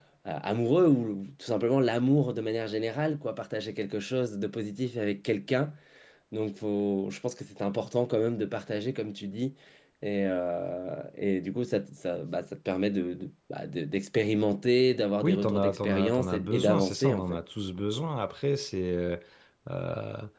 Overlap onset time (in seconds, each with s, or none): 15.2 s